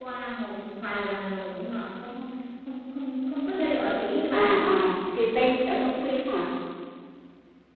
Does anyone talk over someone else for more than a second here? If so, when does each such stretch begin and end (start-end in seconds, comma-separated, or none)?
none